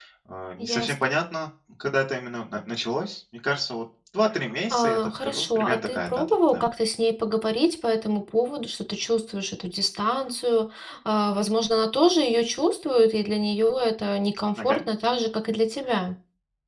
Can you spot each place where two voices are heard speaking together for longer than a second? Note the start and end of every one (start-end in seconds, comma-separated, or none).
4.7-6.6